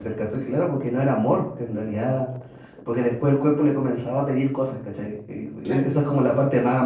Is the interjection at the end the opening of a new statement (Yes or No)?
No